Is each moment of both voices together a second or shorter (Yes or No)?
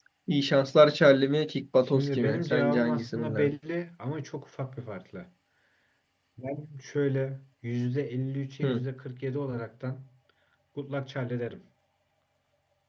No